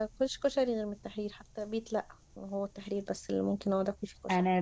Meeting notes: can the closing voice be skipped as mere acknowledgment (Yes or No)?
No